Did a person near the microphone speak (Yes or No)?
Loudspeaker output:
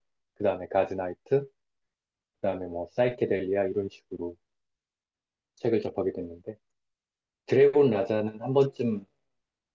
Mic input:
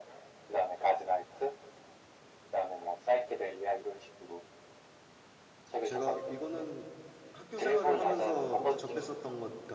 Yes